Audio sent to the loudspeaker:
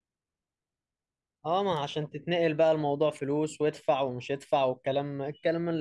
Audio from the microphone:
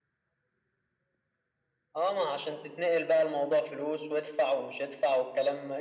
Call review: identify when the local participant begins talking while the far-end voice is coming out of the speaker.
none

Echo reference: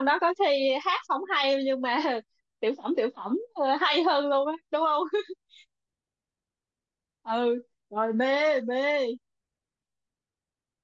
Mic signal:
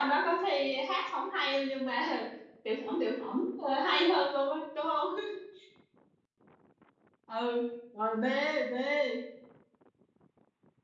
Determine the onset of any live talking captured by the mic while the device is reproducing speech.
none

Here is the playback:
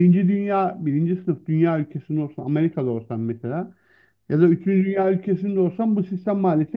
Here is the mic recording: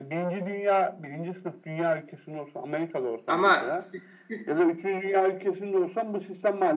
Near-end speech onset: 3 s

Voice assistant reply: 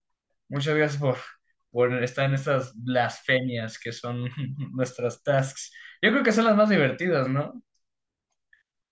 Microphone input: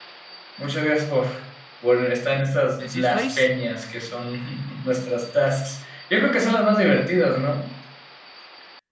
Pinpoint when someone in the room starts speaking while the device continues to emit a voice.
3 s

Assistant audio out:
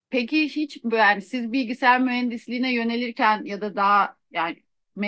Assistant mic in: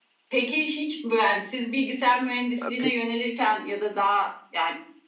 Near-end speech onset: 3 s

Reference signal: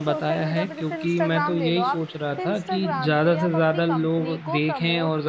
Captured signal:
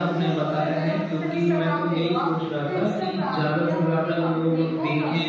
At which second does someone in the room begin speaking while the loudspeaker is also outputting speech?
none

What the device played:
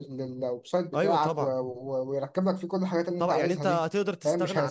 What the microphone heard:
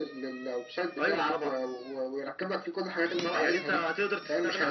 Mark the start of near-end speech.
none

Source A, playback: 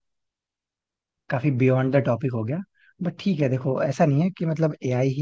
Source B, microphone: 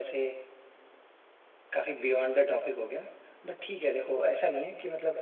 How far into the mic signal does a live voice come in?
none

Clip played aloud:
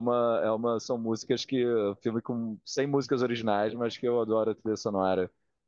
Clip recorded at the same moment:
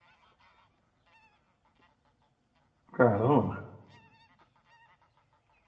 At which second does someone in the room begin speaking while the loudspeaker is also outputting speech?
3 s

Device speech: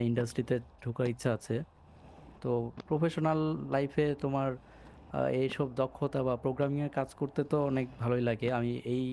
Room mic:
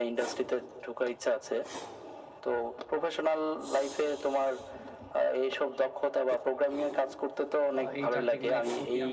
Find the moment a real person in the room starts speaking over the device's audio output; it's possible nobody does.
8 s

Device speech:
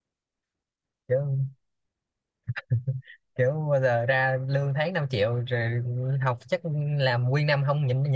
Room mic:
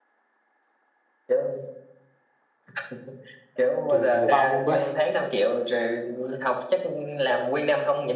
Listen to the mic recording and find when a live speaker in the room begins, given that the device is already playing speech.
4 s

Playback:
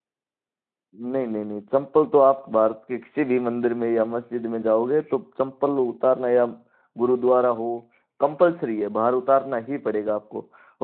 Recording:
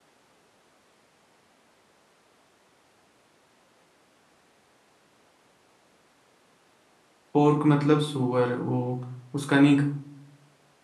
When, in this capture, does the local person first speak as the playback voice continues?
7 s

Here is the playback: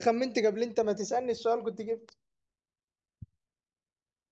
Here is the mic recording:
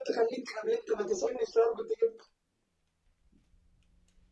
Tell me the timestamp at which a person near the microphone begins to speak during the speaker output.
none

